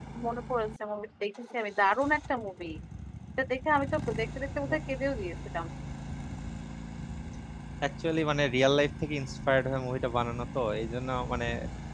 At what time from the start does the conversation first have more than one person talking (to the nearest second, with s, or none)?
none